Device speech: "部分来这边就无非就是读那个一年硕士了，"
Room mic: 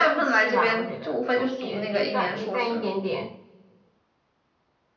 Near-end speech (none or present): present